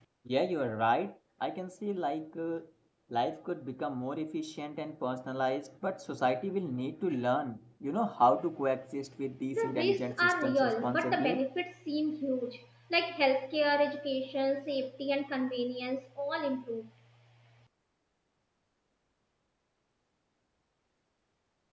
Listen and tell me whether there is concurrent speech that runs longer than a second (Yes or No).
Yes